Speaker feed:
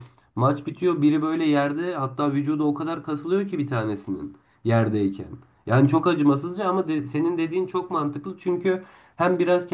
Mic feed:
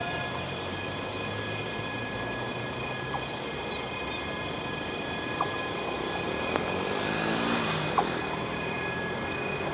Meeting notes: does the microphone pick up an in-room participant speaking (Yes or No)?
No